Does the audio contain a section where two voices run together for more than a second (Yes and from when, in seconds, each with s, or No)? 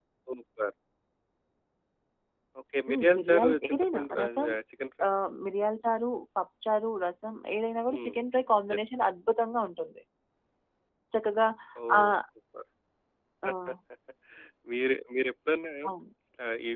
Yes, from 2.9 s